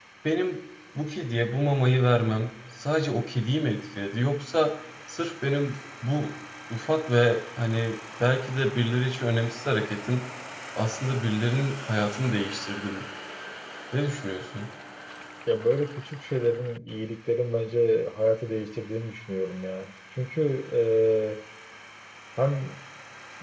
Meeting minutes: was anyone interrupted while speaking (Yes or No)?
No